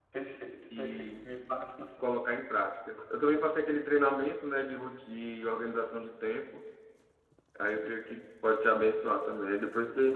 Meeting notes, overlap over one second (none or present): none